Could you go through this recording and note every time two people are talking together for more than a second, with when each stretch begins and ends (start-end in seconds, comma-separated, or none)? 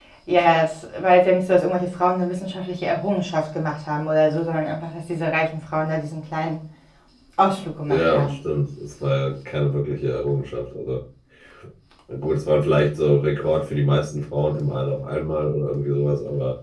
none